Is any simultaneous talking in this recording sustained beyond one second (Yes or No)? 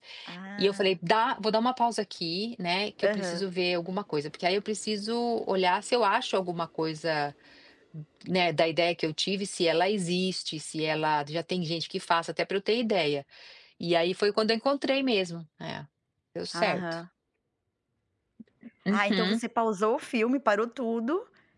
No